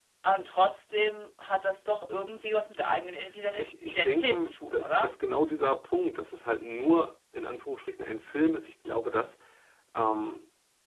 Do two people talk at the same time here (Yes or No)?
Yes